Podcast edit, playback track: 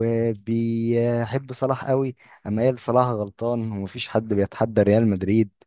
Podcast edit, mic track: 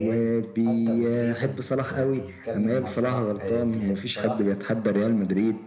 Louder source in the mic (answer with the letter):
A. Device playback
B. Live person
A